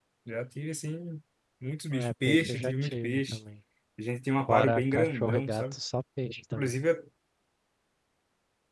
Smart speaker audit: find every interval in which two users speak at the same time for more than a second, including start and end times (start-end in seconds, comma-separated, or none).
1.9-3.4, 4.5-5.8